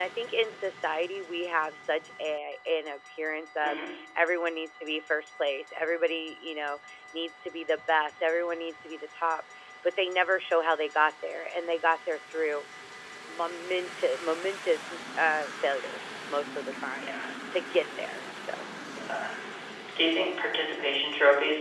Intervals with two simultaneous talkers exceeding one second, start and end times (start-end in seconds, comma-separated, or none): none